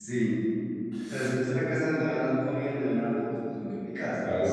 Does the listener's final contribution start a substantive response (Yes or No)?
Yes